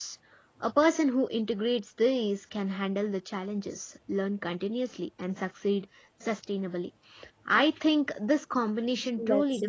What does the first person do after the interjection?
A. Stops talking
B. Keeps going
B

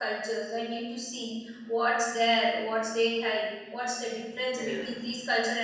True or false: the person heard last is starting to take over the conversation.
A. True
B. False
B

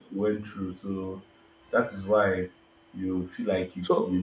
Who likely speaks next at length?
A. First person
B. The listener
A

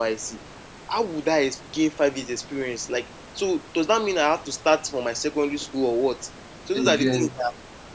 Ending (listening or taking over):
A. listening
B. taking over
A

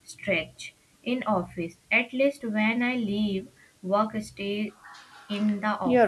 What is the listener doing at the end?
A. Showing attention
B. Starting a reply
B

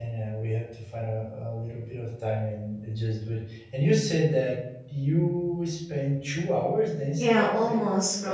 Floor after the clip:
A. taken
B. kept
A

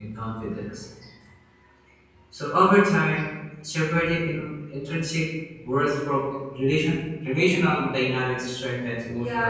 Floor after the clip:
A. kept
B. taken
B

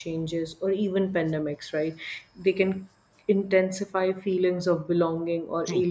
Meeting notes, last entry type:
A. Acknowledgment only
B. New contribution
B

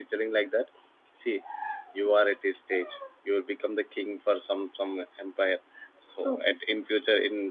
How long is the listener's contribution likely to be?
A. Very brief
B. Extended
A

